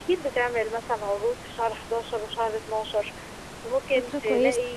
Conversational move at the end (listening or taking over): listening